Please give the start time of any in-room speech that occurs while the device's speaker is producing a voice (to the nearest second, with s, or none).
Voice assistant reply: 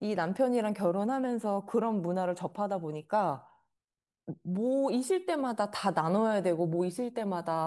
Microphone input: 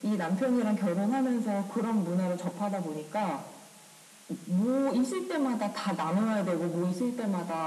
none